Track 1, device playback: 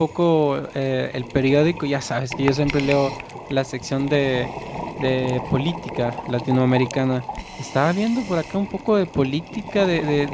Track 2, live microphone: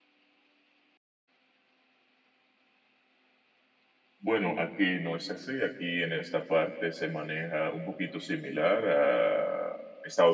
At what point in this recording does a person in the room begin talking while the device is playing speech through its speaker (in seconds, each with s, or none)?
4.2 s